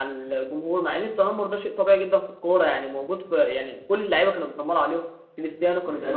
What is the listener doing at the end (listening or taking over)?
listening